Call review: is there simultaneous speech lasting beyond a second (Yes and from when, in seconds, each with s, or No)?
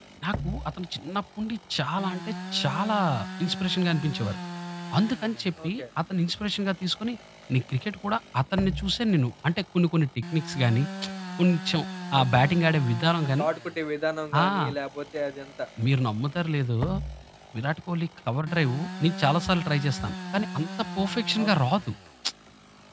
No